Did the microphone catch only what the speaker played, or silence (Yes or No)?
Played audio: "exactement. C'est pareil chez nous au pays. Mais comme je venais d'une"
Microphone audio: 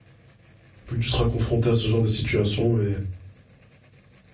No